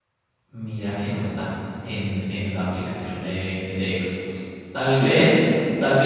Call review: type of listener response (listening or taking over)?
listening